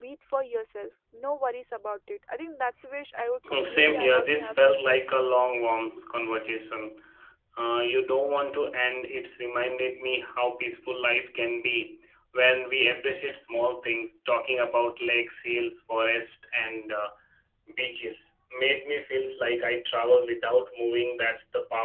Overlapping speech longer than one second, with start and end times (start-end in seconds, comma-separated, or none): 3.5-5.2